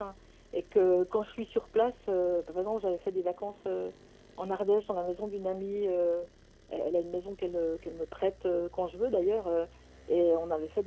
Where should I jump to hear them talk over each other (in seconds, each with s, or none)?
none